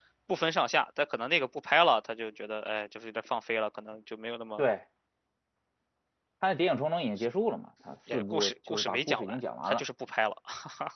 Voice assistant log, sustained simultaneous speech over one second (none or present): present